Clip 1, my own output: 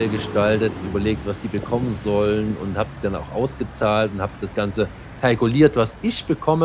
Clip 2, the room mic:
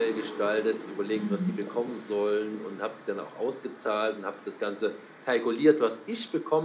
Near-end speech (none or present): present